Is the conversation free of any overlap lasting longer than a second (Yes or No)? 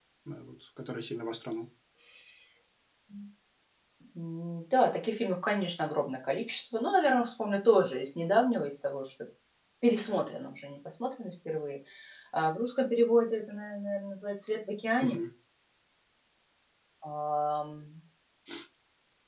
Yes